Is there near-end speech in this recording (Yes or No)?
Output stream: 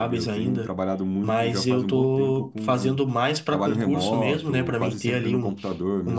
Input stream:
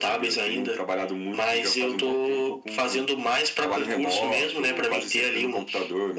No